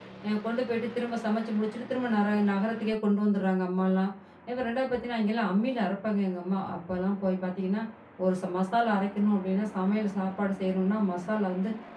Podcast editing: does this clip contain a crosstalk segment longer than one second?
No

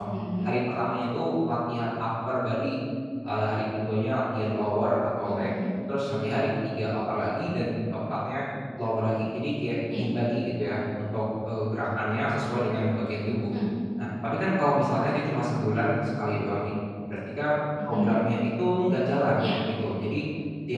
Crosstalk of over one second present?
No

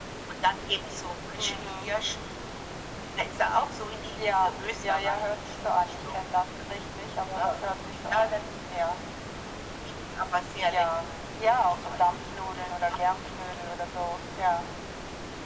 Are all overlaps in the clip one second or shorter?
No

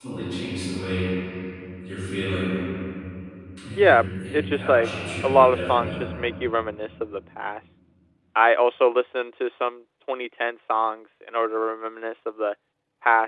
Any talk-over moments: Yes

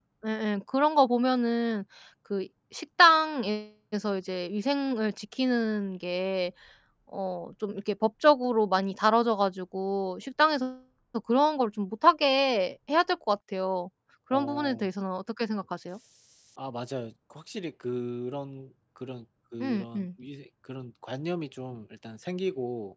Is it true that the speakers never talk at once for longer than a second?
Yes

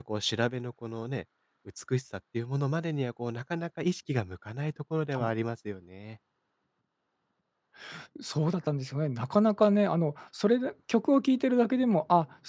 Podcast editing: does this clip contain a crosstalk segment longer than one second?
No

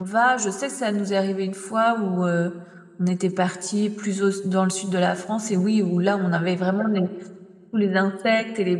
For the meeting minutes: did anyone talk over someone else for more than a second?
No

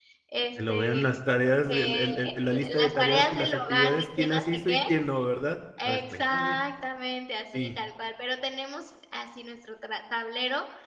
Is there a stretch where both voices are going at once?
Yes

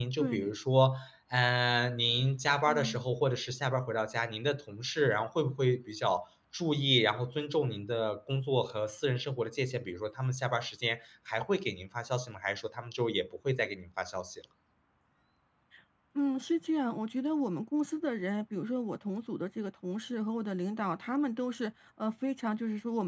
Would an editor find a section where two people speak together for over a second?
No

